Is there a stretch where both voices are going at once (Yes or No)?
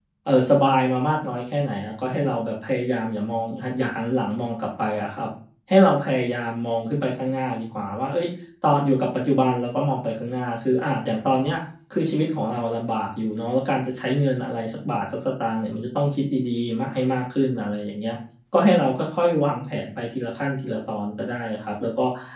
No